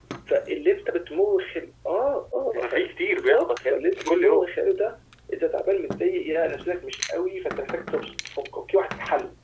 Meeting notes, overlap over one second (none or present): present